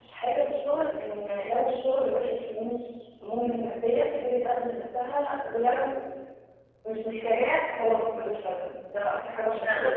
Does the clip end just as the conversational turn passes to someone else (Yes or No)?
No